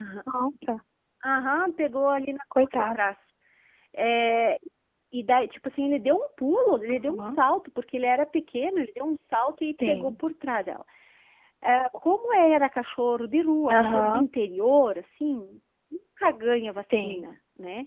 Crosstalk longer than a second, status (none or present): none